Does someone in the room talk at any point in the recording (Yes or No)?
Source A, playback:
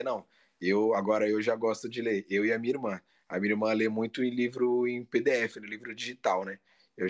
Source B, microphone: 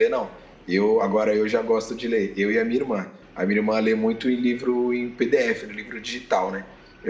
No